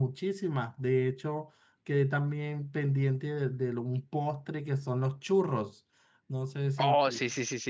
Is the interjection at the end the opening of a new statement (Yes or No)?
Yes